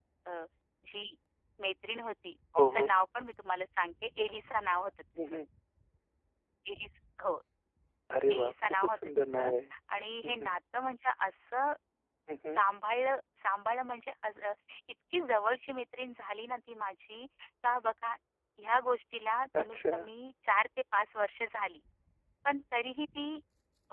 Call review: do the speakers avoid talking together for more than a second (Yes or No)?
No